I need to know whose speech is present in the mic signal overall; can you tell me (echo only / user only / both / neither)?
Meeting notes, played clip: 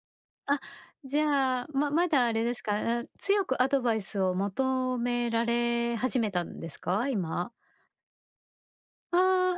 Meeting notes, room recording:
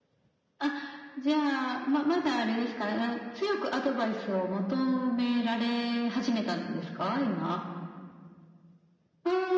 echo only